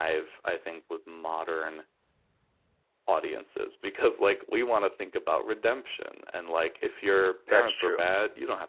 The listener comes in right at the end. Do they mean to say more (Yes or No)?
No